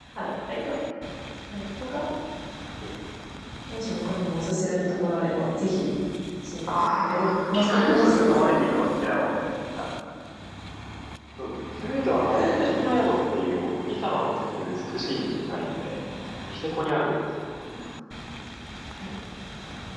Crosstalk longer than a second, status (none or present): present